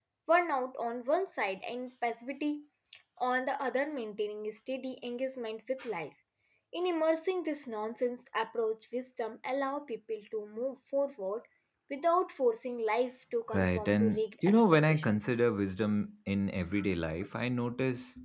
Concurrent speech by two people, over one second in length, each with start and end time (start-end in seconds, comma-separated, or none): 13.5-15.2